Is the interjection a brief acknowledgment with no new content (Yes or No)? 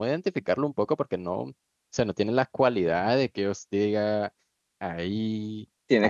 No